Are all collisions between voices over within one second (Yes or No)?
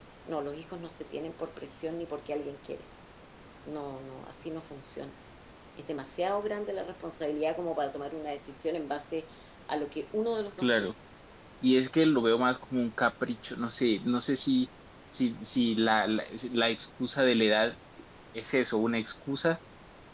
Yes